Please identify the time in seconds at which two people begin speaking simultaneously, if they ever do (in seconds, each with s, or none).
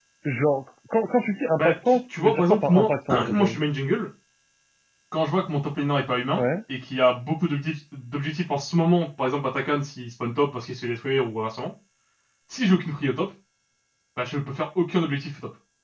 1.6 s